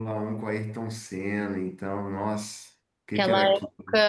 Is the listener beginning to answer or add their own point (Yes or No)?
Yes